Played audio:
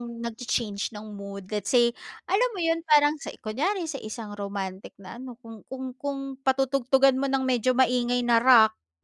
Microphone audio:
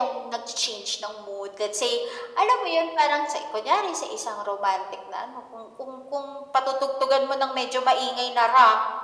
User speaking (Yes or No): No